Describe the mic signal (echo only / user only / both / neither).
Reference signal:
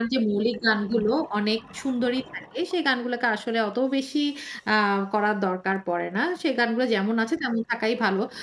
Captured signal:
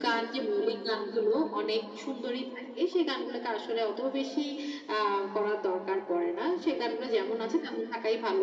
echo only